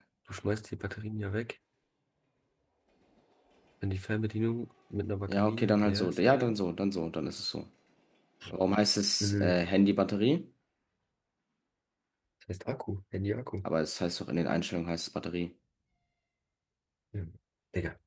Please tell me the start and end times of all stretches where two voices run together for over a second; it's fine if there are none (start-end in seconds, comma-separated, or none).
5.3-6.5